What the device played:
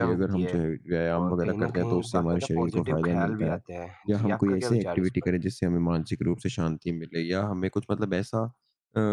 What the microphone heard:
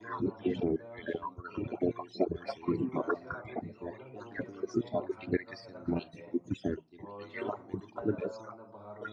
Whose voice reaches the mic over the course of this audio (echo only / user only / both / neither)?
both